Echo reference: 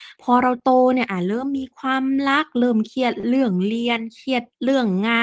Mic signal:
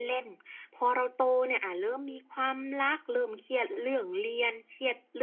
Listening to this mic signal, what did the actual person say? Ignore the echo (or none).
none